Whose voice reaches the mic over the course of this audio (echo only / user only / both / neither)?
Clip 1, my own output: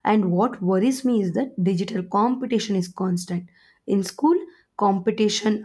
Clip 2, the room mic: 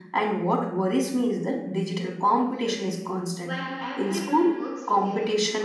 both